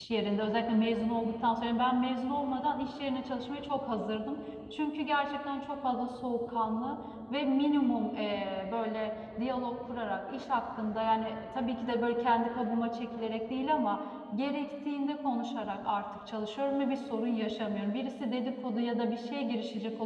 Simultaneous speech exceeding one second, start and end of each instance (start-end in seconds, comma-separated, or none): none